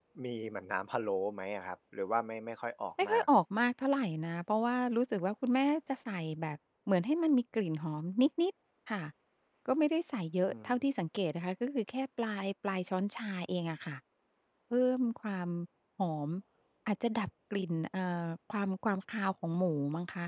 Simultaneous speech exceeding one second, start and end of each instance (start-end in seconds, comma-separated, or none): none